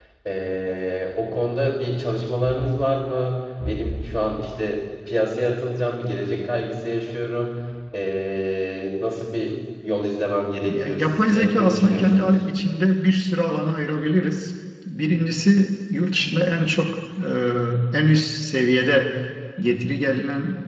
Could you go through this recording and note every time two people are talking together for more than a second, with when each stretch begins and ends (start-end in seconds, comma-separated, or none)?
10.6-12.4